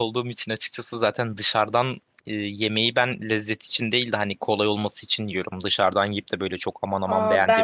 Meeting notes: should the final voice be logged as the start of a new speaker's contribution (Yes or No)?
Yes